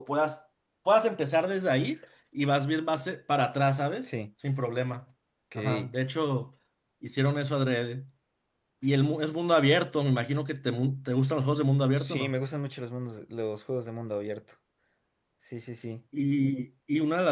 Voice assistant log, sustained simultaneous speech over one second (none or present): none